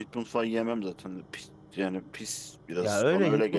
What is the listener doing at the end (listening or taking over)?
taking over